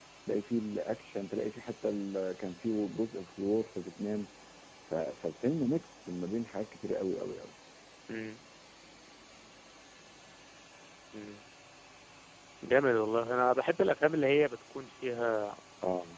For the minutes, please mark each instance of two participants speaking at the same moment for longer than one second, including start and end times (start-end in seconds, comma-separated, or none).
none